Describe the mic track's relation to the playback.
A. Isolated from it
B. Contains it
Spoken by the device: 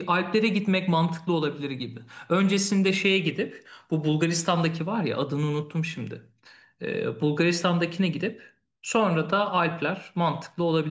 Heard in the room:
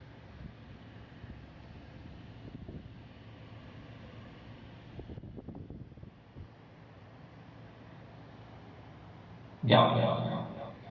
A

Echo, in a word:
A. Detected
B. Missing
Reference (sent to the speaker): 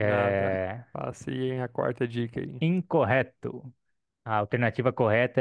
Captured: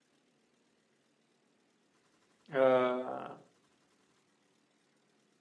B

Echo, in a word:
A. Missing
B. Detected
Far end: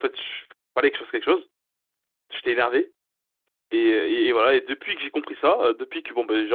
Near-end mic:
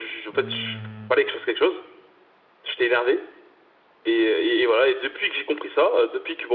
B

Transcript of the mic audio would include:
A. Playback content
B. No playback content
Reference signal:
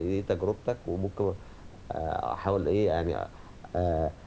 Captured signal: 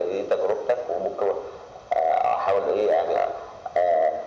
A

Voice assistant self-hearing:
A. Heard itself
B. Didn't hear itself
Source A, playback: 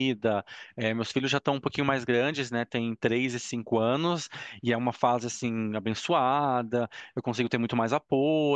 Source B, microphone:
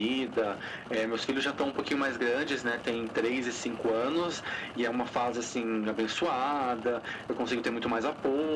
A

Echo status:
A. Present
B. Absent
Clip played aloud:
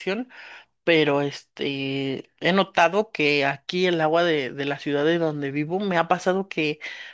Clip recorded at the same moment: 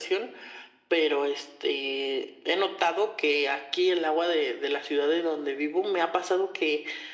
A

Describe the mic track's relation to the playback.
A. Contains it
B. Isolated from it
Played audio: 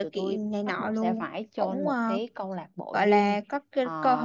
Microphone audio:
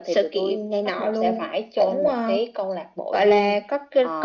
A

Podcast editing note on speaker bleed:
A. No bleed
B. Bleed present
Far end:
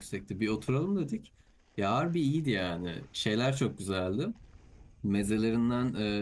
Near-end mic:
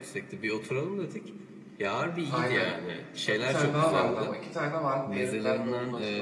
B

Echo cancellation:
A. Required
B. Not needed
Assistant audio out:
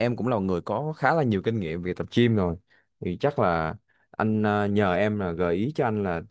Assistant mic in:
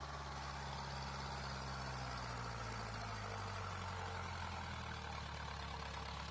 B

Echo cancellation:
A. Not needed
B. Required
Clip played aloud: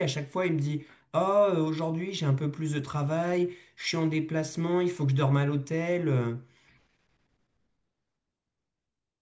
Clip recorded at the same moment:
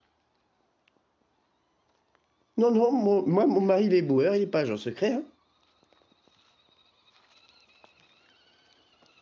A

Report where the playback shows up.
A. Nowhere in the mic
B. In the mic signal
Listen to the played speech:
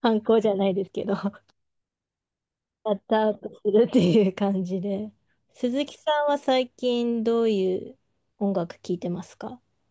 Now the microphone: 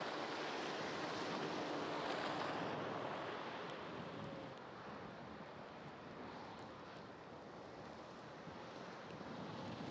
A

